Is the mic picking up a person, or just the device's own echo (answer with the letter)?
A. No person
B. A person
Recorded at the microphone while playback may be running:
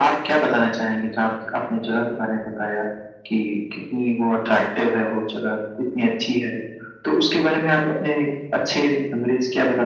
A